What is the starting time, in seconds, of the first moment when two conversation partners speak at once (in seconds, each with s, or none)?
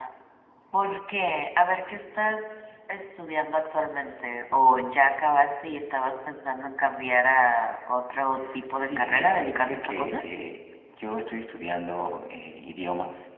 8.8 s